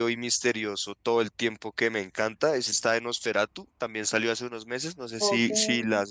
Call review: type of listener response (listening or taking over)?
taking over